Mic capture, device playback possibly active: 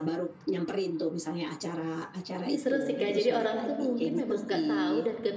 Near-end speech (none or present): present